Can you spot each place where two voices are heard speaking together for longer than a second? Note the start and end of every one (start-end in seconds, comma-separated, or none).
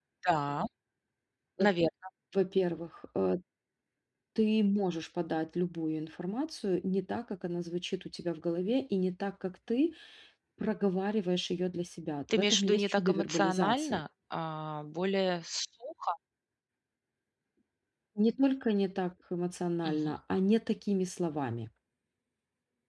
12.3-14.0